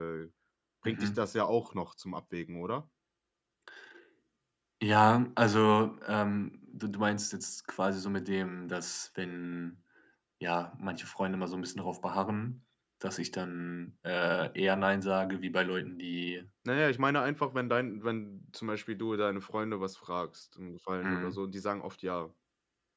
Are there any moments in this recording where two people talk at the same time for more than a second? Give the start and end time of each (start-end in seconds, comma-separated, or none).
none